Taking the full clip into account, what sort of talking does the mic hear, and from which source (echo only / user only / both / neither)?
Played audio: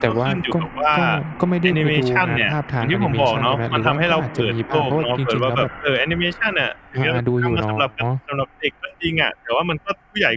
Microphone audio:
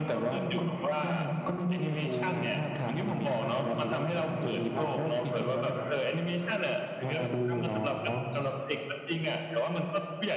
echo only